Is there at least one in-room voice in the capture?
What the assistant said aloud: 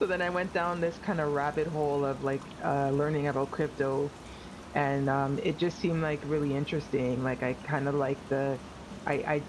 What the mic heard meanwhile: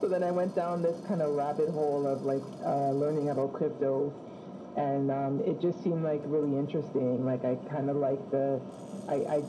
No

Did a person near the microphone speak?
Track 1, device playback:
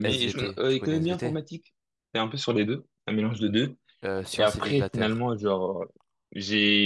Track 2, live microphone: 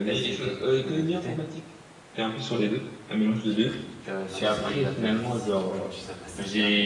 Yes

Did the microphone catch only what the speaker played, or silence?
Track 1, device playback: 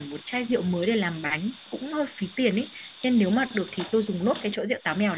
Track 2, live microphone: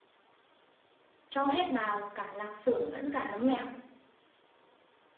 No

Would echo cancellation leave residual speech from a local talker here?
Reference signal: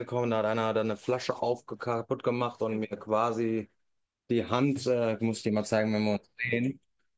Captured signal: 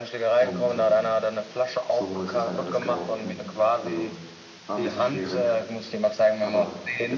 Yes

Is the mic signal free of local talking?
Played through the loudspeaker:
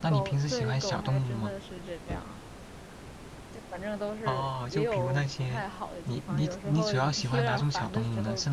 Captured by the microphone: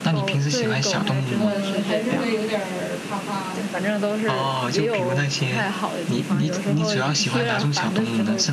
No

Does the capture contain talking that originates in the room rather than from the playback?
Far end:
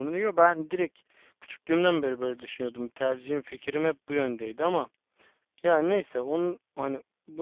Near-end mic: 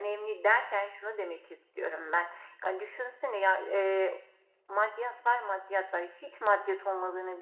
Yes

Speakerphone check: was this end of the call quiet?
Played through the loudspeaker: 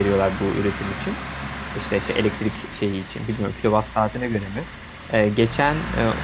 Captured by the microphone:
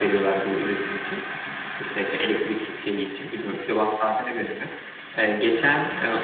Yes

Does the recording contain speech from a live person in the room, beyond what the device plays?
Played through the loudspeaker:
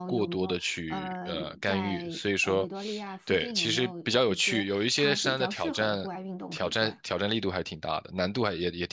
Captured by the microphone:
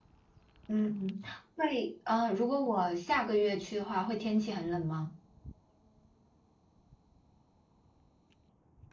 Yes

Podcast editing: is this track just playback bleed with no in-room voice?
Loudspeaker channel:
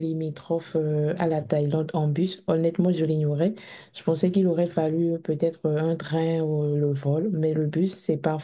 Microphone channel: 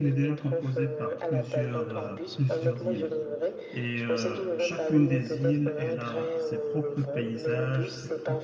No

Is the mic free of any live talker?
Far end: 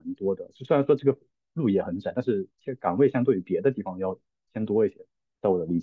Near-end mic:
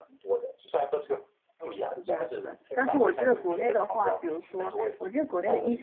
No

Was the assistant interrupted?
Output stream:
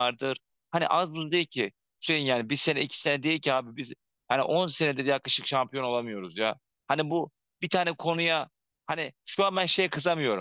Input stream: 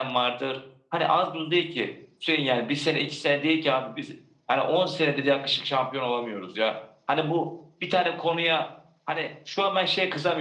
No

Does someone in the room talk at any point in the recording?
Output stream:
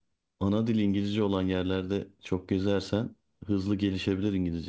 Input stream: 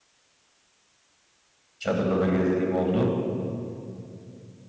Yes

